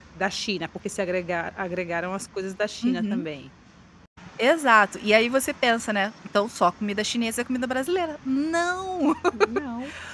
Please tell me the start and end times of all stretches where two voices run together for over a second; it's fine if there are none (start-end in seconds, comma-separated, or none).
none